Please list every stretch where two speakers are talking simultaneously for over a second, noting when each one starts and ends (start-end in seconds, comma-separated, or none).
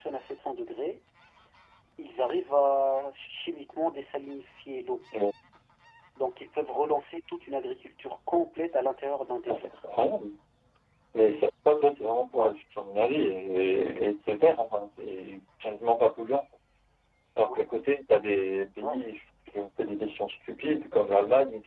none